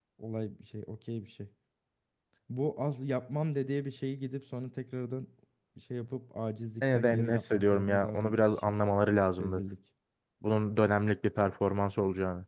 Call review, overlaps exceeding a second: present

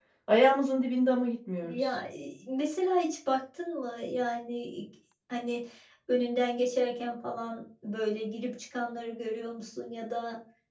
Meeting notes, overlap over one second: none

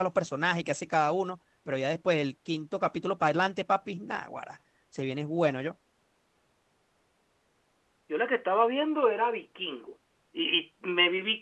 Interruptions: none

